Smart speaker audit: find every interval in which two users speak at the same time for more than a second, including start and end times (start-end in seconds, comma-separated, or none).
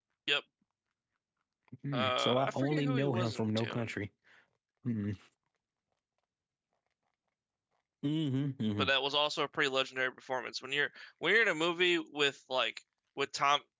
1.9-3.9